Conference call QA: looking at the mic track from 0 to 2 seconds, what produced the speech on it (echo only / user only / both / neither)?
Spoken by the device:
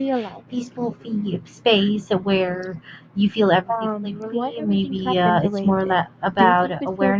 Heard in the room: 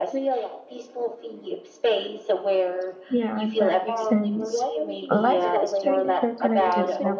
echo only